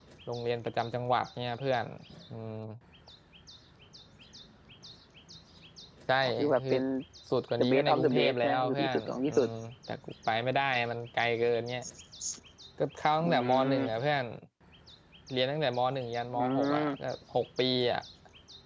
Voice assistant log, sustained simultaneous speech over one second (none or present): present